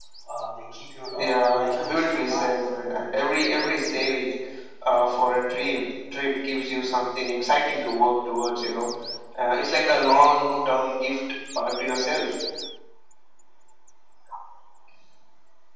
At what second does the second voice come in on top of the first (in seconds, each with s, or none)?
1.2 s